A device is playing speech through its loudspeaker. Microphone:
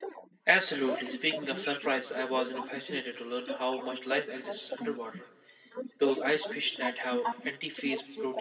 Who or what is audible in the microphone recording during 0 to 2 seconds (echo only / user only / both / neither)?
both